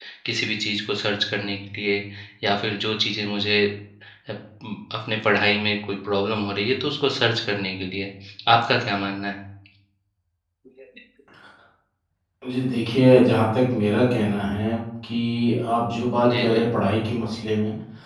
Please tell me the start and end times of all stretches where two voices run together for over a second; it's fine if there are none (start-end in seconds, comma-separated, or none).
none